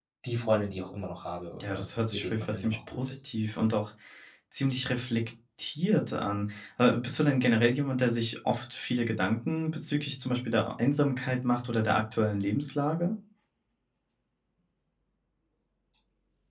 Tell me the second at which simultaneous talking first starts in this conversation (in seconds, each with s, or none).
1.6 s